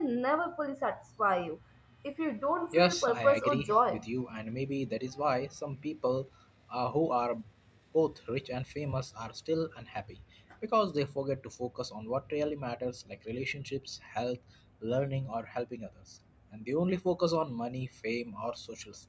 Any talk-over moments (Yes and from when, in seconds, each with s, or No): Yes, from 2.7 s